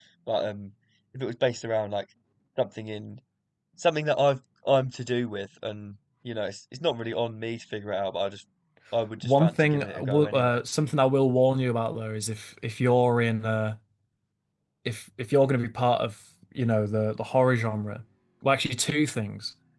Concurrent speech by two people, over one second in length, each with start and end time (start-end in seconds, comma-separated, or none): 9.2-10.6